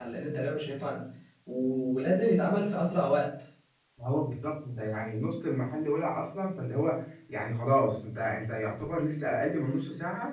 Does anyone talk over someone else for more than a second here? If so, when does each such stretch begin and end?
none

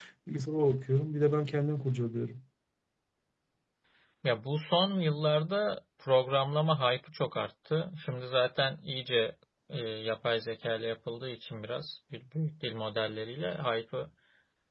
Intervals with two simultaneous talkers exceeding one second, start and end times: none

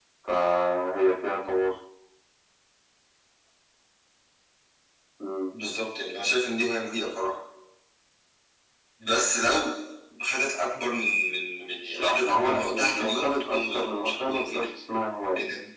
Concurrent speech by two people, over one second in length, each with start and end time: 11.9-14.7

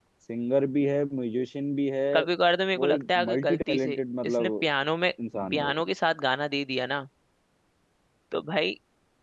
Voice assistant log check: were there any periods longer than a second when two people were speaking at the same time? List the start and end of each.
2.8-4.7

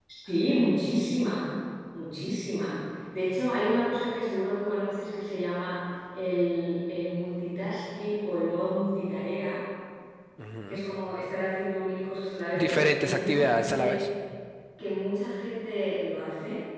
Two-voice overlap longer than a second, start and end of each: 12.5-14.0

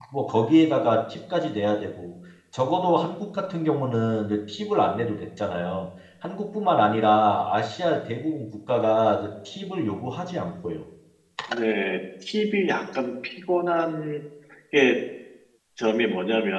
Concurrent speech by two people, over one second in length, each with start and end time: none

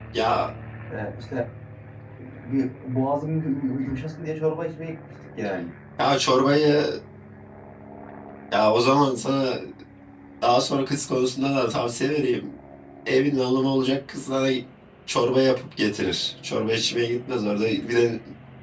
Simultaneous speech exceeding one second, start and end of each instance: none

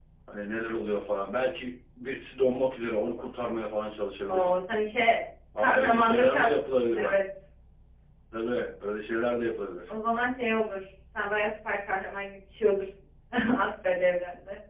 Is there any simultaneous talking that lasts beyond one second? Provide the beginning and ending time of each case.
5.6-7.1

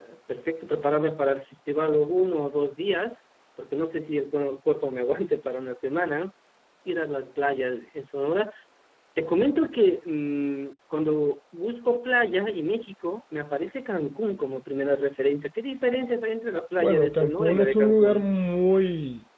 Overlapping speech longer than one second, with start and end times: 16.8-18.2

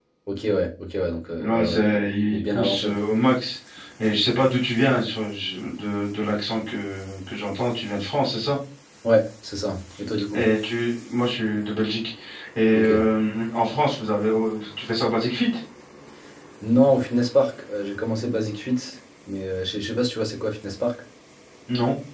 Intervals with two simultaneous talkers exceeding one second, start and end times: 1.4-2.9

